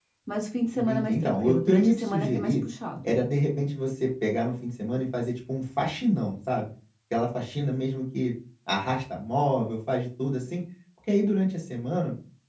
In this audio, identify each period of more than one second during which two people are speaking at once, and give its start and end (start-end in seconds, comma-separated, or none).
0.8-2.5